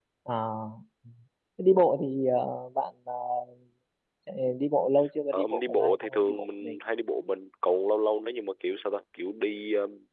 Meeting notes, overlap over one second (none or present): present